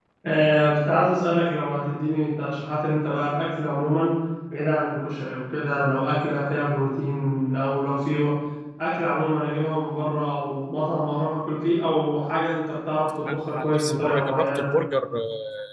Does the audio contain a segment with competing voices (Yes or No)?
Yes